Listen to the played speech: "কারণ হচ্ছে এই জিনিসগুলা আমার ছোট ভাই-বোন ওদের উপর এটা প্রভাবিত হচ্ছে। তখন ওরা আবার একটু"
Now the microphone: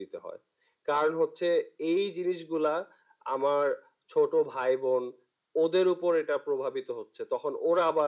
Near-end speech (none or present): none